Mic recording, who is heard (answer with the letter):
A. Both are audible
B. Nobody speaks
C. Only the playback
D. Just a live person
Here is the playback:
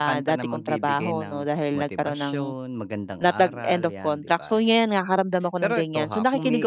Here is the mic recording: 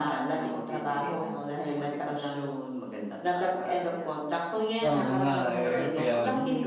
A